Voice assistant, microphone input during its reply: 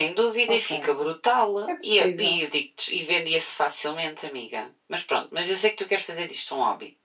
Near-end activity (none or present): present